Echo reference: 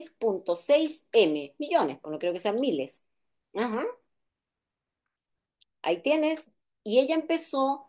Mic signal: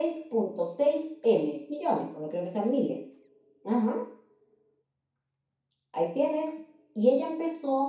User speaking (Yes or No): No